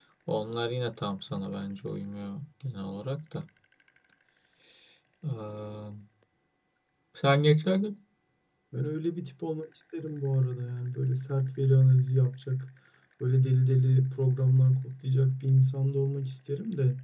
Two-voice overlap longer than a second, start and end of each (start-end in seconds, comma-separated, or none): none